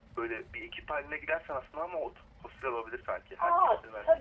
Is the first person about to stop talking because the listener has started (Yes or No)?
Yes